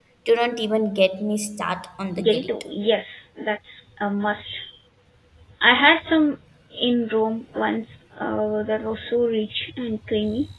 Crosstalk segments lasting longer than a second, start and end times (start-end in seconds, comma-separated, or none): none